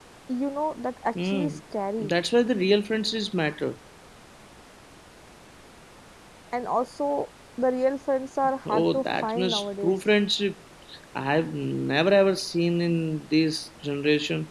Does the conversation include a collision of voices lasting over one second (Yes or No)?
Yes